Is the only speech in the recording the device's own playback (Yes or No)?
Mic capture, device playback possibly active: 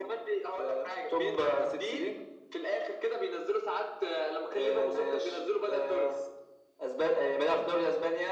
Yes